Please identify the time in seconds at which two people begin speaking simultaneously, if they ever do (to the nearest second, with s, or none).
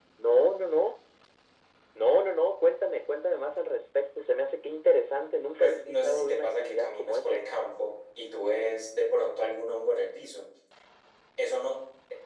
6 s